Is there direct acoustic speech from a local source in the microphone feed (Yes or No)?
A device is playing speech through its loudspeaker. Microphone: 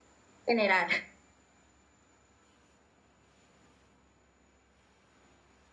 Yes